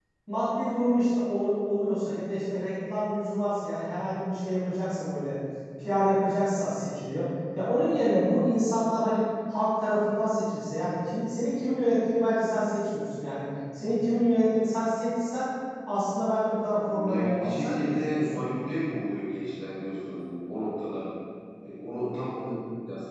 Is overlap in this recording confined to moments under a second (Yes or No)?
No